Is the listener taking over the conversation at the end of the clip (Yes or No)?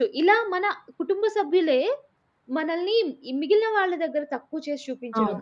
No